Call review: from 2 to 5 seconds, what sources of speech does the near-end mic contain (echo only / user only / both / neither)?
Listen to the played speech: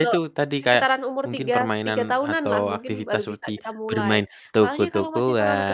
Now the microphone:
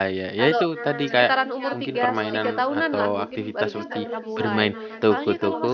both